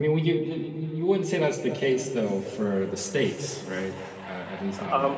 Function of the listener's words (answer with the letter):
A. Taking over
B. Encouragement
A